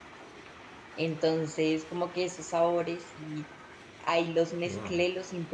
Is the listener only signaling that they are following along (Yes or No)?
Yes